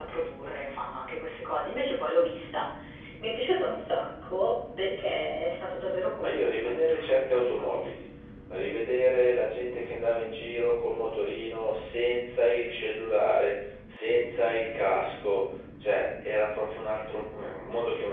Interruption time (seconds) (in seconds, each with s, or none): 6.2 s